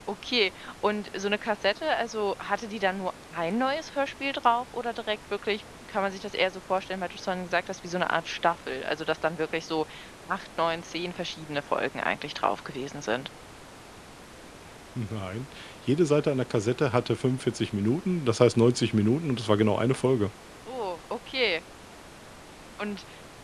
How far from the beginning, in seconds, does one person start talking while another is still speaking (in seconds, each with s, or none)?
none